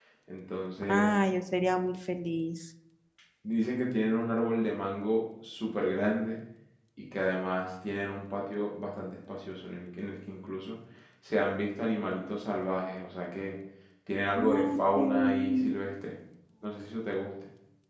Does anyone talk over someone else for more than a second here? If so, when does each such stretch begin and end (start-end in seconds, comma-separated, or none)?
14.4-15.7